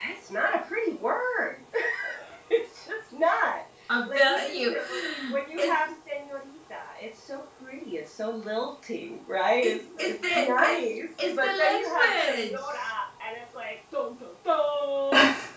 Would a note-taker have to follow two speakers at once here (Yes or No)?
Yes